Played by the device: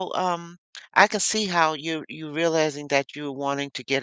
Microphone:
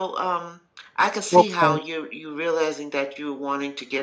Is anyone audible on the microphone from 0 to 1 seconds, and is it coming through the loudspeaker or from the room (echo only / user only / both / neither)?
echo only